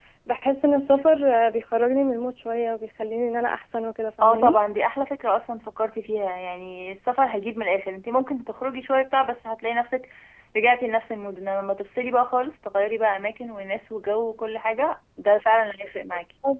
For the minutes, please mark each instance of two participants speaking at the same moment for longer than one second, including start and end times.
none

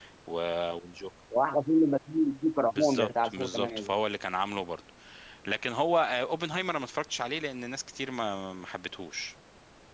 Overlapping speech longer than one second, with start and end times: 2.7-3.9

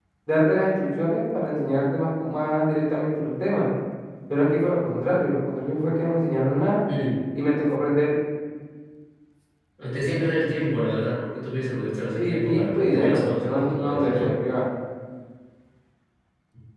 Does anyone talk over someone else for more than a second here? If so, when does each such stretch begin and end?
12.2-14.3

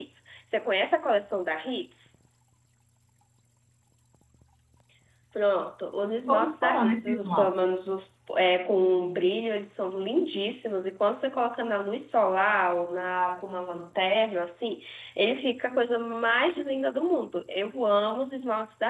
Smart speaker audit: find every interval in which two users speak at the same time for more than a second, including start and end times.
6.3-7.5

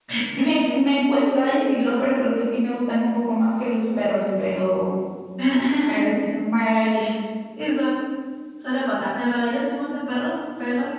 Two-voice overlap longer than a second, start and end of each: none

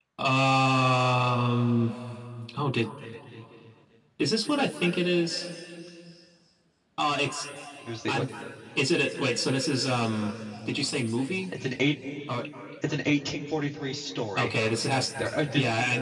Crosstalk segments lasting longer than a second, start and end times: none

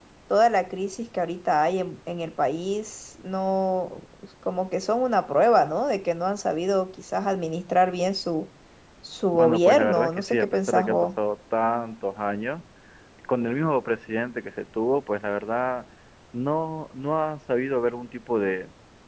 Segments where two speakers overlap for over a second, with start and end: 9.3-11.1

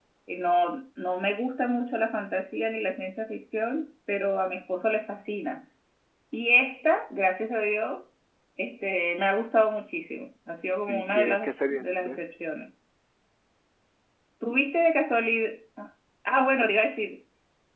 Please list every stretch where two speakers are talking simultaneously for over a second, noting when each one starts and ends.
10.9-12.3

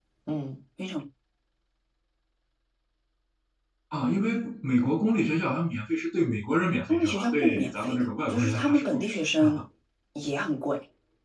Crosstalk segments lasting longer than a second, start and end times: 6.9-9.6

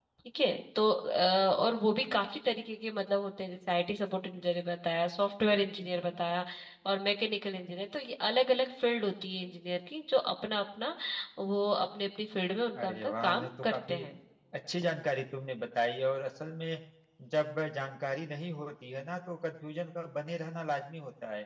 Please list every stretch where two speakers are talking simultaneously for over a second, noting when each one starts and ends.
12.8-14.0

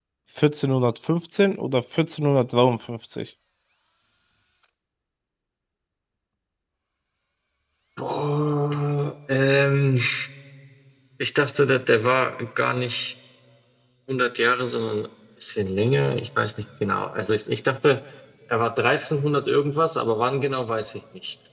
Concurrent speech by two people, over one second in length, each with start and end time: none

